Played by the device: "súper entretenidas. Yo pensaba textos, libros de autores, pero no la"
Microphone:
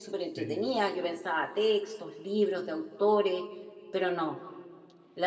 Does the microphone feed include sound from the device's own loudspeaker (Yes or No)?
Yes